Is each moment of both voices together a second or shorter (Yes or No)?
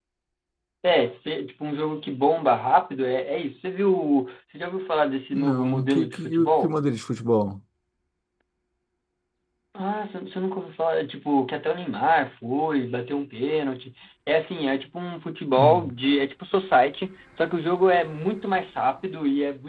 No